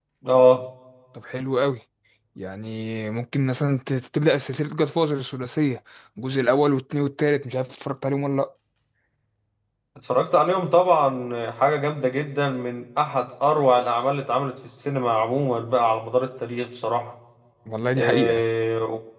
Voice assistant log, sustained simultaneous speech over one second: none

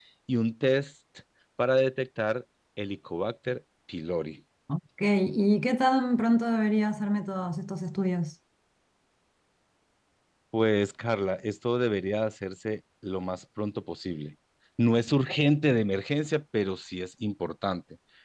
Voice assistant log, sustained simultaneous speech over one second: none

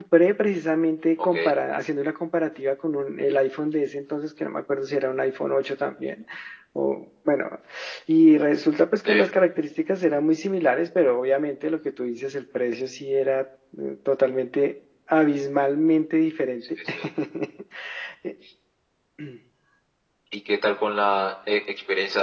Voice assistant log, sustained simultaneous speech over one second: none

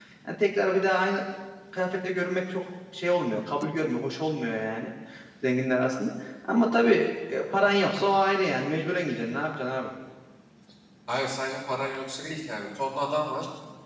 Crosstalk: none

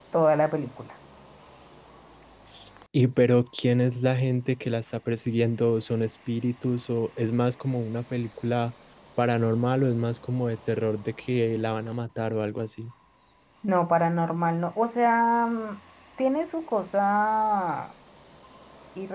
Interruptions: none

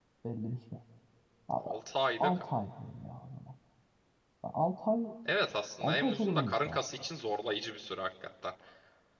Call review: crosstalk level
present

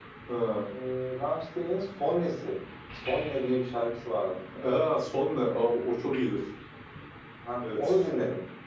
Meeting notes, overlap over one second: none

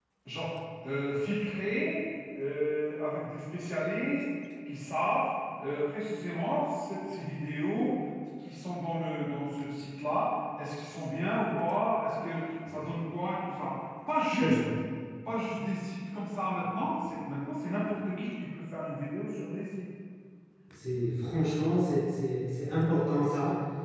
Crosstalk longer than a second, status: none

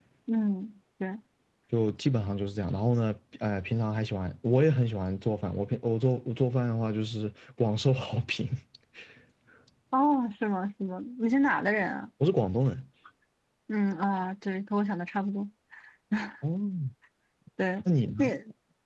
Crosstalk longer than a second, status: none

